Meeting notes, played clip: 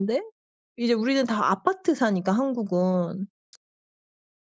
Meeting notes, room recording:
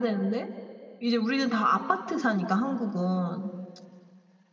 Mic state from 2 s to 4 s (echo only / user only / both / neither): echo only